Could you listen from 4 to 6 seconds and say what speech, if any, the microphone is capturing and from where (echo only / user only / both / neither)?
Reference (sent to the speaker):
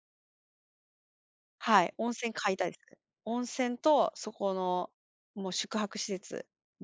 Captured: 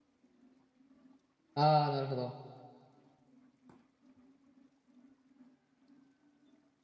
neither